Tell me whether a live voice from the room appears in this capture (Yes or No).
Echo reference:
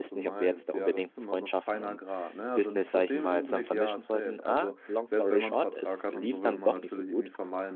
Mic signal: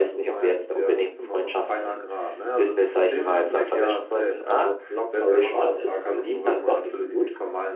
No